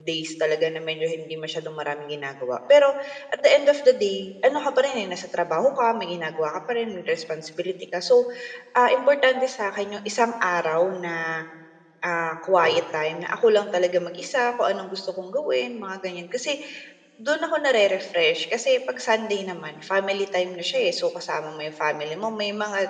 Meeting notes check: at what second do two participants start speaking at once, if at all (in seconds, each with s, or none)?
none